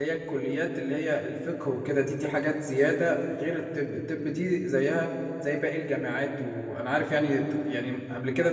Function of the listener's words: listening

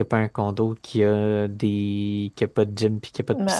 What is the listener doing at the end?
taking over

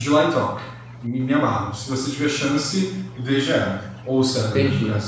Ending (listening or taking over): taking over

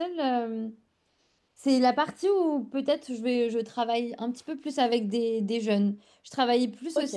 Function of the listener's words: listening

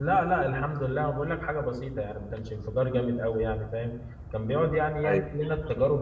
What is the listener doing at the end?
listening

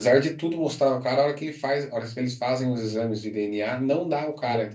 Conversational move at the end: taking over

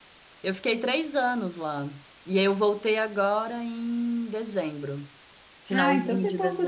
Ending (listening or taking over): taking over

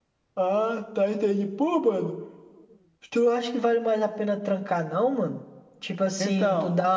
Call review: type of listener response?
listening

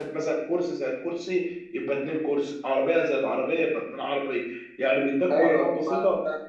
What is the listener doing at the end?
listening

